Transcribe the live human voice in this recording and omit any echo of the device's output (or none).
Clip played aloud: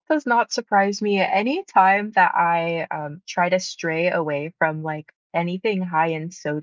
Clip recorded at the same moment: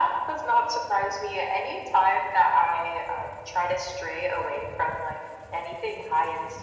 none